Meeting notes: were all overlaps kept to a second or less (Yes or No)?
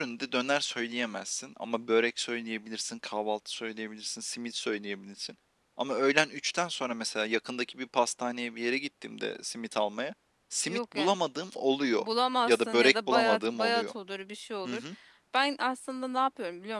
No